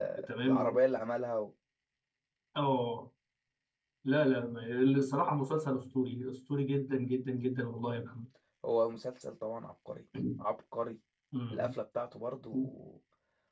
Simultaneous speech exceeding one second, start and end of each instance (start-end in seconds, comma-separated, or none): none